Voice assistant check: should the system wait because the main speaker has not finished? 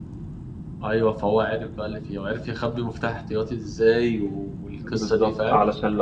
No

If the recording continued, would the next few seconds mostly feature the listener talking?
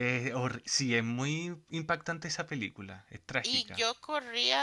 Yes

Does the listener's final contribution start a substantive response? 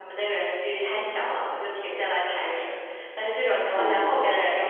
No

